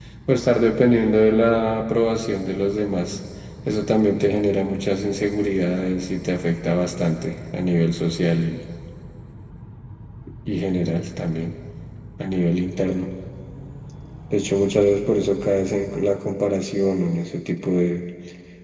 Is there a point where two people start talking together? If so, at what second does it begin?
none

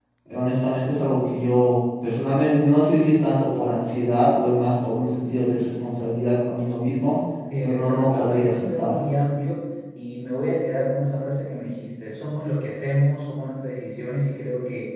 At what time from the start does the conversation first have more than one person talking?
7.6 s

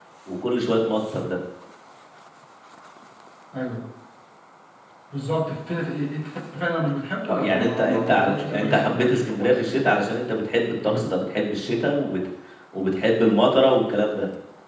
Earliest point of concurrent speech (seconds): 7.3 s

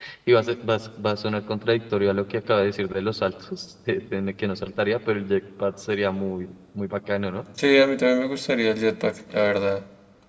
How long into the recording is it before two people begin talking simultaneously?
none

